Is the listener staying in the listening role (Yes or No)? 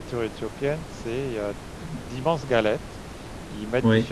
Yes